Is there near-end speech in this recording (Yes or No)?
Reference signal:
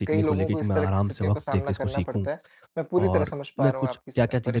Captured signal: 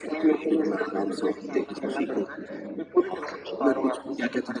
No